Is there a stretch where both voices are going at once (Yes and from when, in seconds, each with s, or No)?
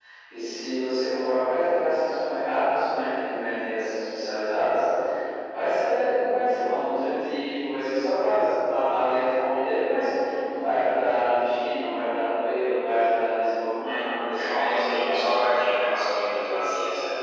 Yes, from 13.8 s